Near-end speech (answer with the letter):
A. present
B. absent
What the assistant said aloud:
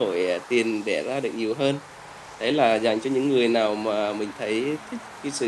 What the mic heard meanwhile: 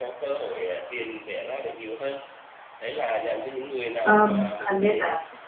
A